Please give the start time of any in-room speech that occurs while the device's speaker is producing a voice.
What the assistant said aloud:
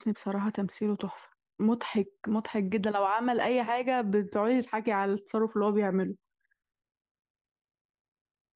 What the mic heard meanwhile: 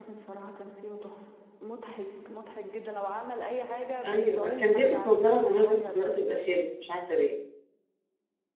4.0 s

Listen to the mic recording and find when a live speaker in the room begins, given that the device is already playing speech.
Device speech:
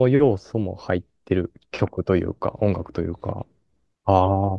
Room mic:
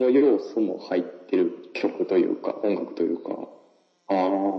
none

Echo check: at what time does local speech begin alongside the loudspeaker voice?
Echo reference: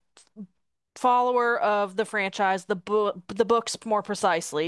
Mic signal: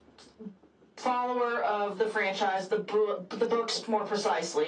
none

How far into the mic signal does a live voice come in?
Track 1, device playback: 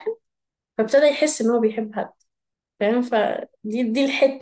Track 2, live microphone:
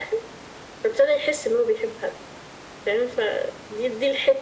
none

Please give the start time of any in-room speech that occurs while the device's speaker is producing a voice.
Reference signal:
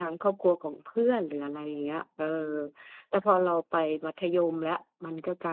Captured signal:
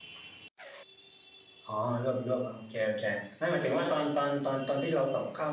1.6 s

